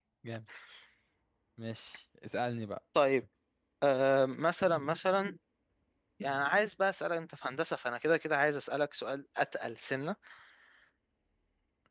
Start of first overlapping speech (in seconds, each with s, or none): none